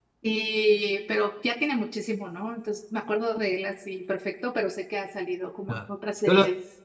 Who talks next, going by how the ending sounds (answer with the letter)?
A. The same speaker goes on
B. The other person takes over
B